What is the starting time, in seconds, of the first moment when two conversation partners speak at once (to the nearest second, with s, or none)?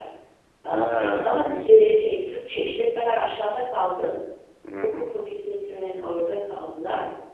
1 s